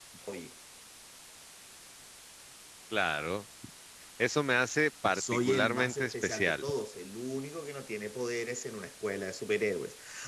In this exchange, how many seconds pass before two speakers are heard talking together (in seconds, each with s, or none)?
5.1 s